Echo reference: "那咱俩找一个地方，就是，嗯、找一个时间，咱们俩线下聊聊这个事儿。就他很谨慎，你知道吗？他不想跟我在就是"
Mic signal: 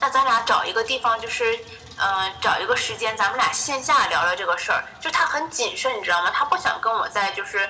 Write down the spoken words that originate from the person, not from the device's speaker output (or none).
none